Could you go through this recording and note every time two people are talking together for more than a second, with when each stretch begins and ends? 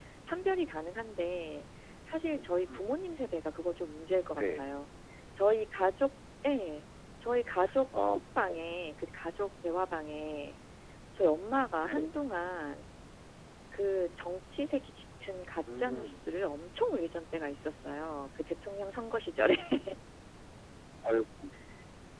none

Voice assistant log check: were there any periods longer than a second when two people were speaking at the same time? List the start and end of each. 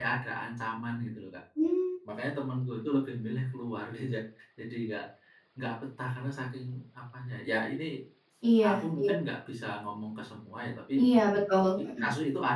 none

